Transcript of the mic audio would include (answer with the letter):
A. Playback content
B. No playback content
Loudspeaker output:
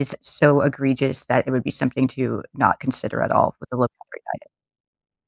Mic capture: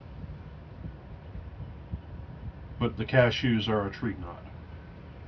B